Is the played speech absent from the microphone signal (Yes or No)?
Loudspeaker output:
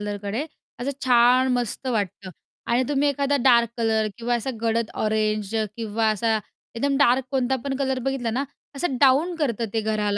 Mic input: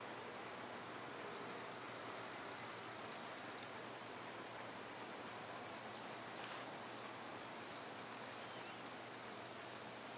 Yes